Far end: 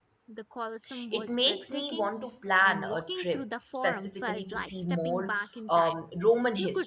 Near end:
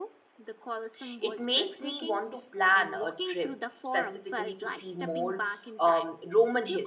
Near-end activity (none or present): none